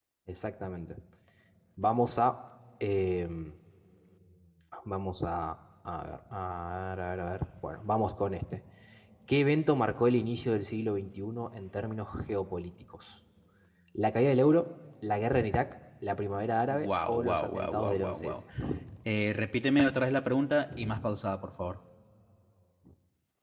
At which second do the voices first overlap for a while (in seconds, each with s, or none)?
16.7 s